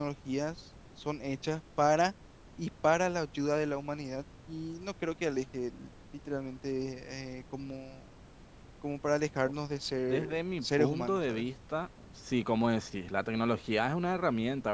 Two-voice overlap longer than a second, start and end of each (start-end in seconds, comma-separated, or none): 10.1-11.4